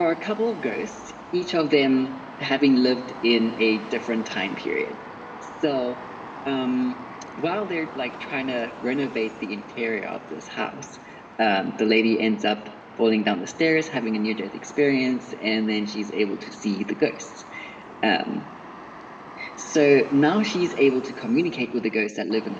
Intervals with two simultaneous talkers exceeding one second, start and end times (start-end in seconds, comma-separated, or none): none